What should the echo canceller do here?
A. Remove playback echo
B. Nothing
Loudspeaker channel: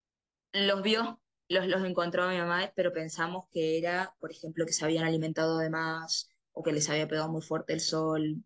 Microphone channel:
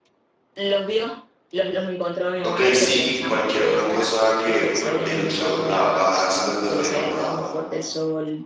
A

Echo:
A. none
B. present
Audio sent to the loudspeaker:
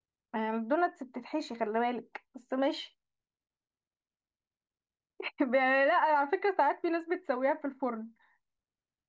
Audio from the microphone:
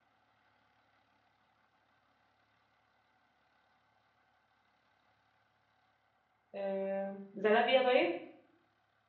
A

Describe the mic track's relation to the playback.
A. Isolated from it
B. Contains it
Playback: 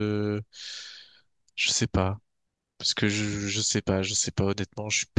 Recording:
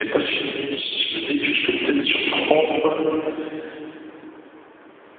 A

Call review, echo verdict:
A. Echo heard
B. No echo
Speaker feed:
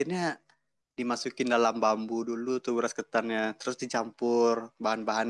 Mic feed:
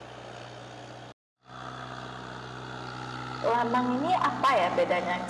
B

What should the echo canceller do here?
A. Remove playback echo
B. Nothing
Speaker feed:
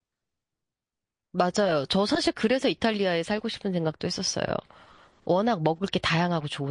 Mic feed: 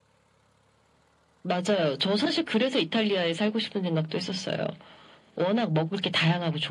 A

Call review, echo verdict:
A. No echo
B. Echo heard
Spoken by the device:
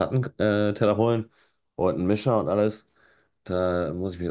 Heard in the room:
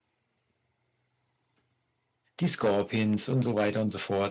A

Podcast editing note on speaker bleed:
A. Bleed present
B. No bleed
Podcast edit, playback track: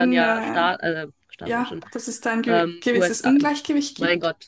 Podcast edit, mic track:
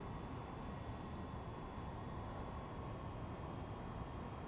B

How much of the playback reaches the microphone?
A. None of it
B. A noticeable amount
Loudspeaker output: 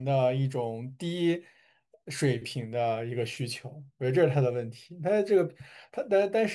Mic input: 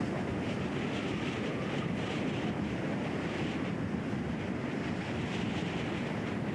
A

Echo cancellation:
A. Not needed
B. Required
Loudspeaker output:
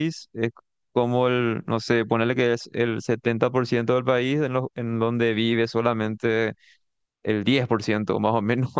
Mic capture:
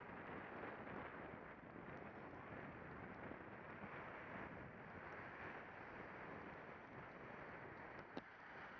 A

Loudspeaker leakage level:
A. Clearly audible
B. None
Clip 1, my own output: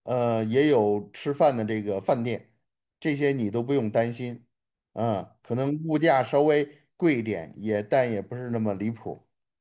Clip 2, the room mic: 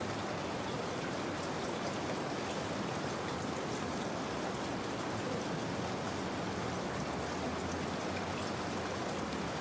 B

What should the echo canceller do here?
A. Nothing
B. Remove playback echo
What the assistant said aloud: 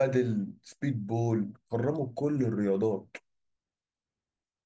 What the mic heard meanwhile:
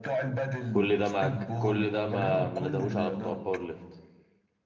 B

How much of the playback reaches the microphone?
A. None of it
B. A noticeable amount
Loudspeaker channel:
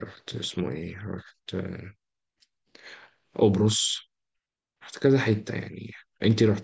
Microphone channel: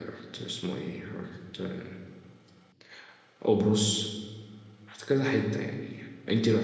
B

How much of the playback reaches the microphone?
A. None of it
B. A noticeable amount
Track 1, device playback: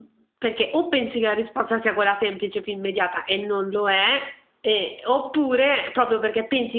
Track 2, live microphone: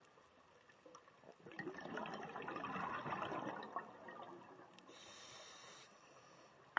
A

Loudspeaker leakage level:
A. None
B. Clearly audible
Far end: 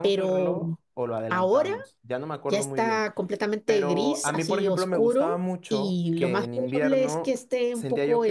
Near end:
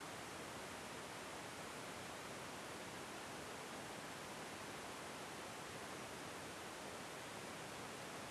A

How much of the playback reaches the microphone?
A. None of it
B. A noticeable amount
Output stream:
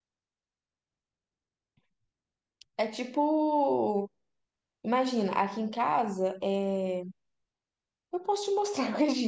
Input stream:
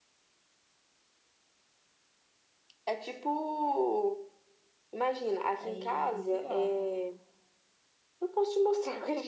B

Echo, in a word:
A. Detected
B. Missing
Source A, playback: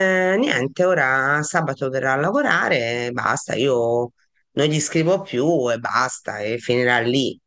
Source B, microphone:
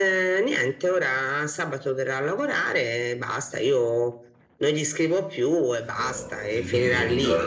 A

